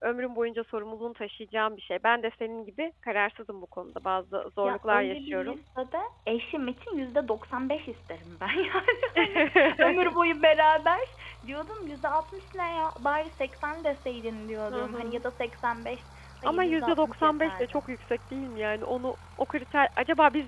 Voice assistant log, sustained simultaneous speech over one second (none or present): present